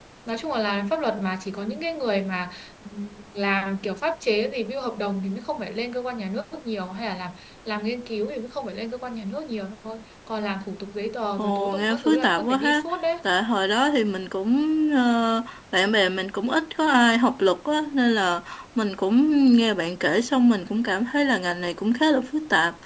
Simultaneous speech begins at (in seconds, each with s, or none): 11.4 s